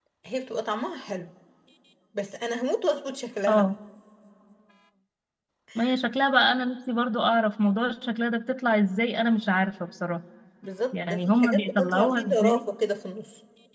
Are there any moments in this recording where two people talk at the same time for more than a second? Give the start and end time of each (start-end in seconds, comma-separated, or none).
10.9-12.6